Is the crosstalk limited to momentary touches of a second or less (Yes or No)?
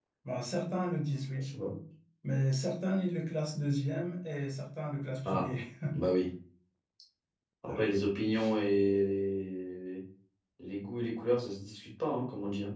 Yes